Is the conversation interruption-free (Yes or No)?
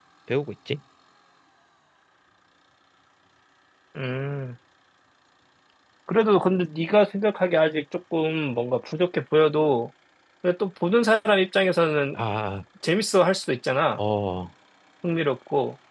Yes